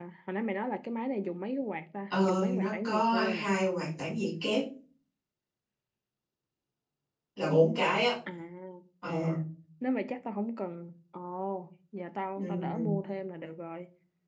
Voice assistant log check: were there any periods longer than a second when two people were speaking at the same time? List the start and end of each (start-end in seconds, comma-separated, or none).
2.1-3.5